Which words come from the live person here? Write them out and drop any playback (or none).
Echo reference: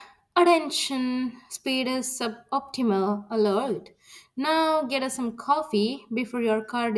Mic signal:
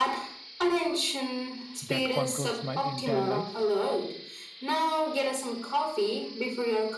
that controls my entire life.